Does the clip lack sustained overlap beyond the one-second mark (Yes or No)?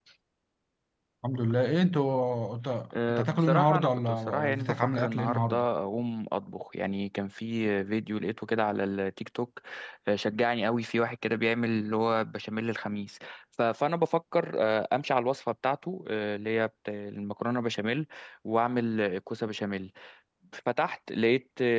No